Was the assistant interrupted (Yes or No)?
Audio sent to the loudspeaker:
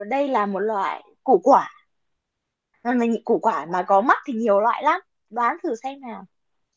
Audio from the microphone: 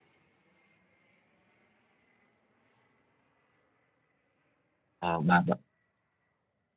Yes